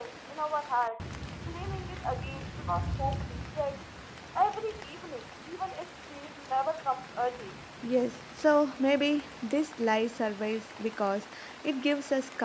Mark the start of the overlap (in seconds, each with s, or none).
none